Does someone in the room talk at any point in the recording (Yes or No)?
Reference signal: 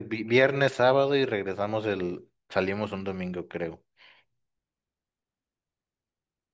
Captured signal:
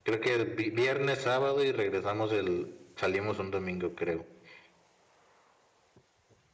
No